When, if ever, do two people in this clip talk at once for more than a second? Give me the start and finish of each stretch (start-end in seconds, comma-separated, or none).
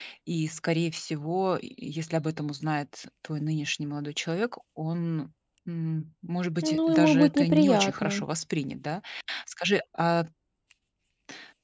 6.6-8.2